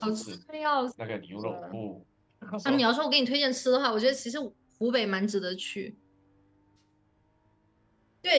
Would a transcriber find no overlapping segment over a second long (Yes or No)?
Yes